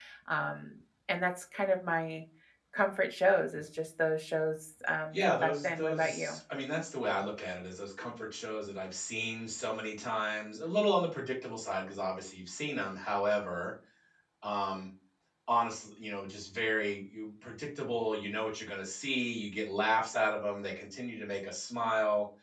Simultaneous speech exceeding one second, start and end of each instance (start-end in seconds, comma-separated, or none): 5.1-6.4